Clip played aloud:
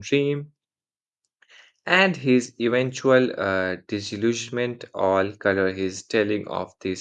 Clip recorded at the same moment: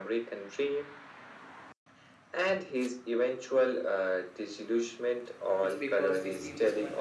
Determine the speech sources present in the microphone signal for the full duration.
both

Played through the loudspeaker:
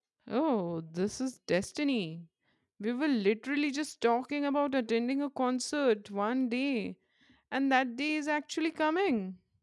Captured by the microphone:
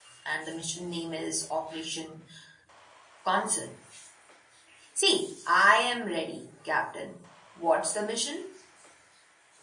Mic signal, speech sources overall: user only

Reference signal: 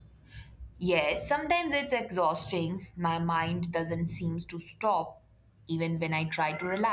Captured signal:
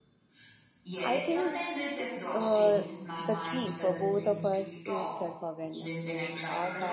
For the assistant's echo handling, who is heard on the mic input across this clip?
both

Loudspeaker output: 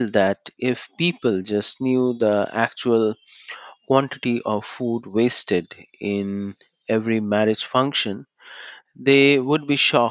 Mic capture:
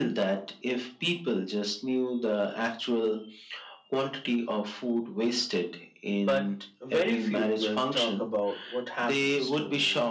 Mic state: both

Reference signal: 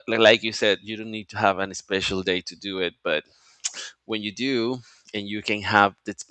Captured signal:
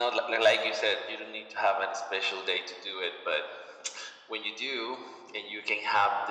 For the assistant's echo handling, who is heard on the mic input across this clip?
echo only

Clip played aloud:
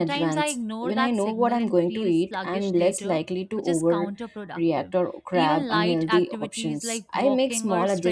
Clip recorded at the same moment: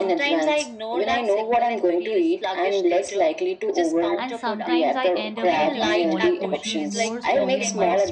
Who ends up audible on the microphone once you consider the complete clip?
both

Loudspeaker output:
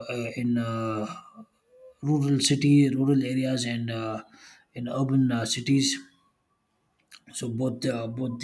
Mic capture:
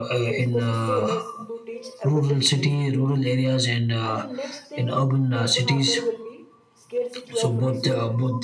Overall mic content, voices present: both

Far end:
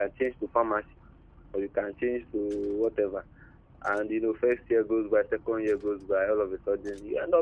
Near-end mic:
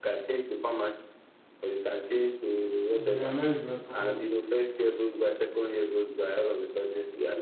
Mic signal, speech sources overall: both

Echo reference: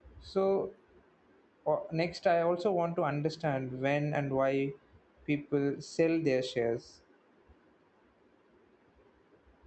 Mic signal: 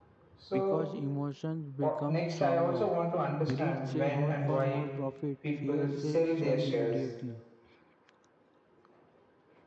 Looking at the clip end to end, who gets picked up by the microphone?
both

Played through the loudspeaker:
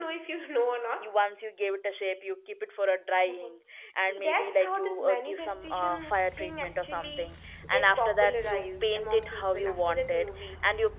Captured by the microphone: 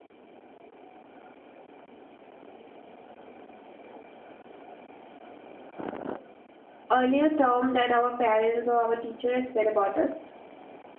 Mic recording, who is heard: user only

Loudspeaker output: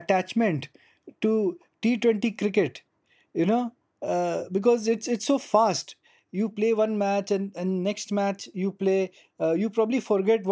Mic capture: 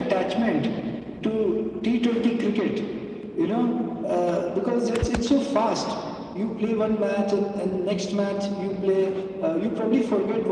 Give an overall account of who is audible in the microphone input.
echo only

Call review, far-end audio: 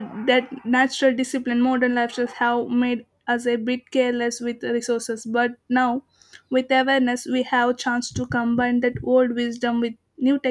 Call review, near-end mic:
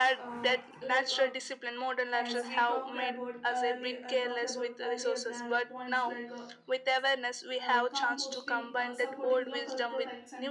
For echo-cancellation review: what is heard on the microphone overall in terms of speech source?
both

